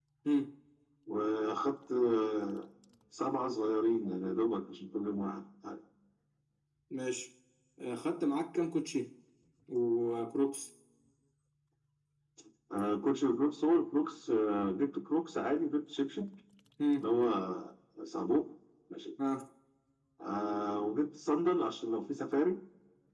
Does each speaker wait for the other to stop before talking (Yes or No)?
Yes